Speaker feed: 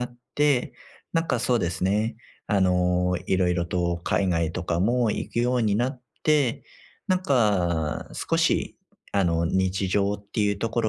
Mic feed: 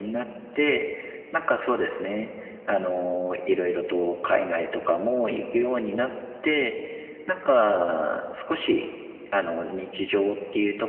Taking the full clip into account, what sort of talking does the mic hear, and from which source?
both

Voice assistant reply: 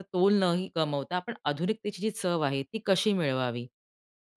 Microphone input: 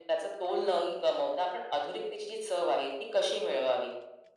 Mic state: echo only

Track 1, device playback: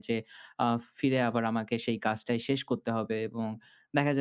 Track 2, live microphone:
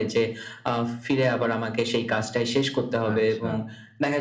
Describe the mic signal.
both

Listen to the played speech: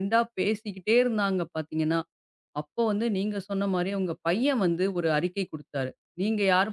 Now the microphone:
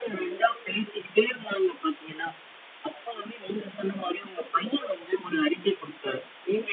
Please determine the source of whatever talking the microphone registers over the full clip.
echo only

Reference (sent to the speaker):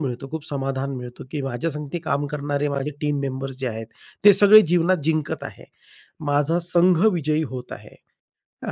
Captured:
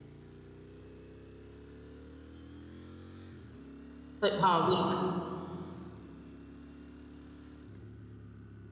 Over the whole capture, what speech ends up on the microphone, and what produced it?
user only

